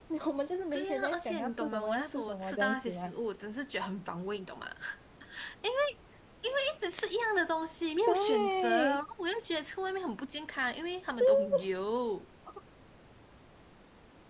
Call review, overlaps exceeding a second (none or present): present